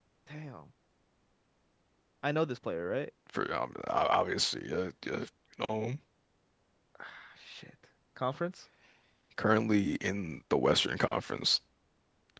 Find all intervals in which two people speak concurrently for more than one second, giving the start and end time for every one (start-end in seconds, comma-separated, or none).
none